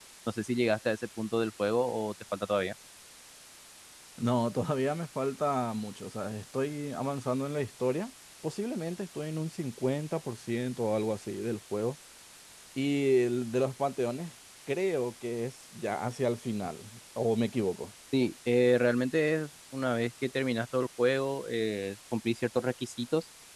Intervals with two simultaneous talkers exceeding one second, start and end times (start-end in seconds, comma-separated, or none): none